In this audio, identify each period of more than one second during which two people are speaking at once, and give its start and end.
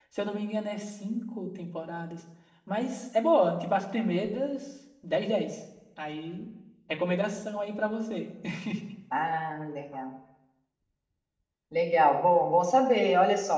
none

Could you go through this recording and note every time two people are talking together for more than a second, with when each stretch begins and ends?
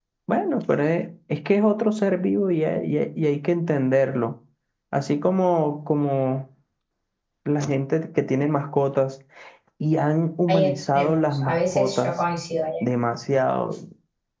10.5-12.1

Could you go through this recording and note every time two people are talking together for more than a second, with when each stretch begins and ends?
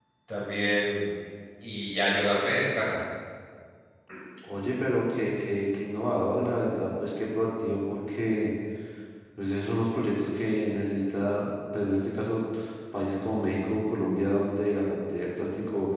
none

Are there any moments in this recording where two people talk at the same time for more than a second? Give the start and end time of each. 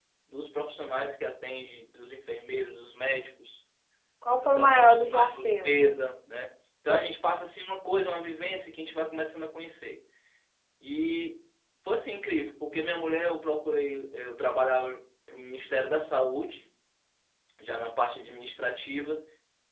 4.4-5.8

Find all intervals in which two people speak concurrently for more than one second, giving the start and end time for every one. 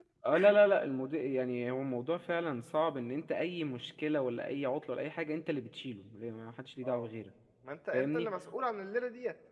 none

